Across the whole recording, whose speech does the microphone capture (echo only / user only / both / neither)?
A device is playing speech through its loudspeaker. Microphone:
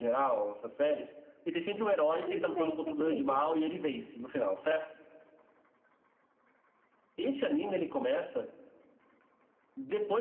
both